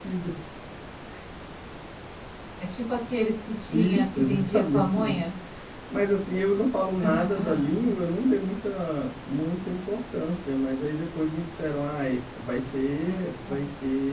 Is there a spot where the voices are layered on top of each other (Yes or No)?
Yes